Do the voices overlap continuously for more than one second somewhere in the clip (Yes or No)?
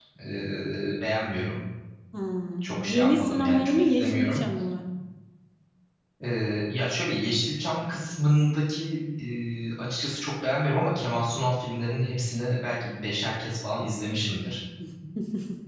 Yes